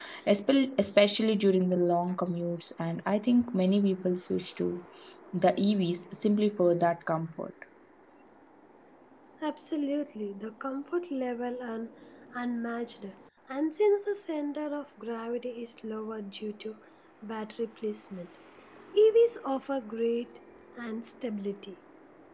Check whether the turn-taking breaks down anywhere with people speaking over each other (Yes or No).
No